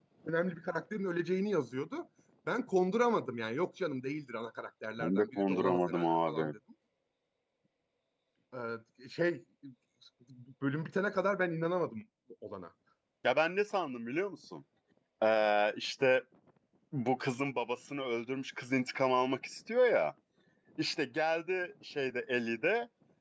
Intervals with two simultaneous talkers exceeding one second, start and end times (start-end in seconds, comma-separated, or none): 5.0-6.5